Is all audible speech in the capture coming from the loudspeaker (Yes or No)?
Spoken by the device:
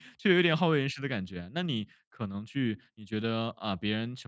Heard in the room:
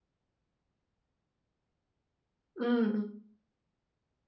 No